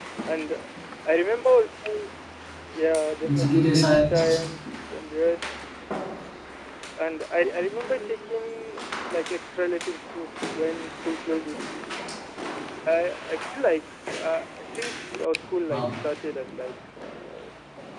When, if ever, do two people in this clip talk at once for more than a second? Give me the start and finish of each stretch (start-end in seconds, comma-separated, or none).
3.2-4.5